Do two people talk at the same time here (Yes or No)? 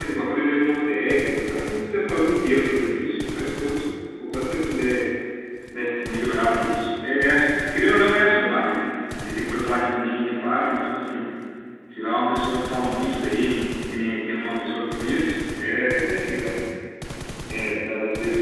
No